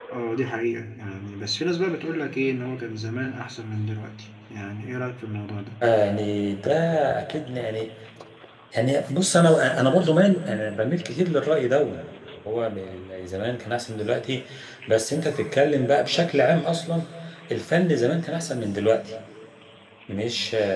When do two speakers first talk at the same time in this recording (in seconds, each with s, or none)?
none